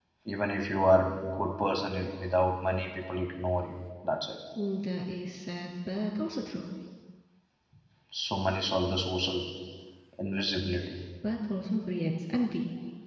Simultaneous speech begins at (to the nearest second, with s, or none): none